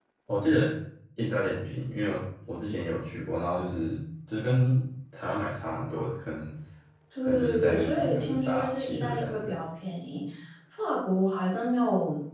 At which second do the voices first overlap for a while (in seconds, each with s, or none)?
7.2 s